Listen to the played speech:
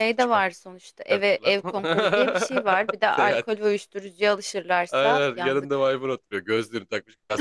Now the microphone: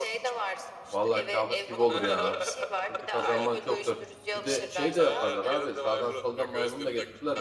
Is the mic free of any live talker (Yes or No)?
No